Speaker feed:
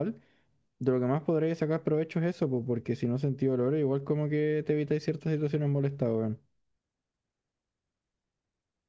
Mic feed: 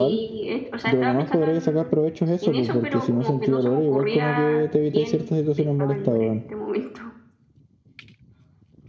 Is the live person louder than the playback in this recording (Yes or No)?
No